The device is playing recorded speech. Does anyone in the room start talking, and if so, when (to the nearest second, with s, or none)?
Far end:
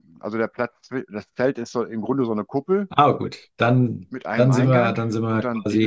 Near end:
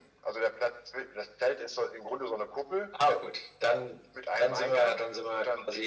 none